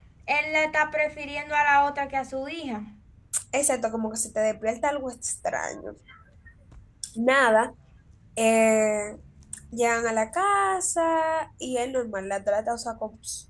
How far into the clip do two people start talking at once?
none

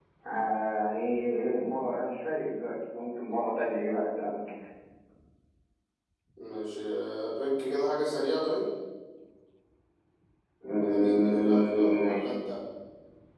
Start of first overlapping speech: 10.9 s

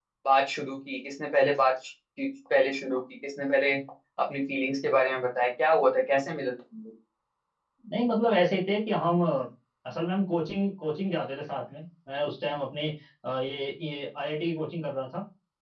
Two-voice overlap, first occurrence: none

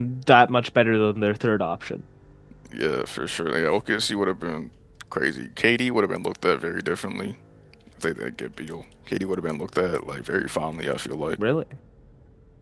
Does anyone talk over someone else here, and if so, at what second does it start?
none

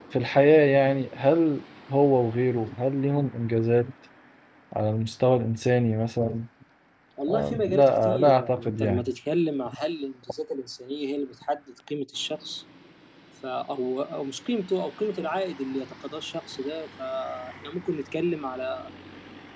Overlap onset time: 7.3 s

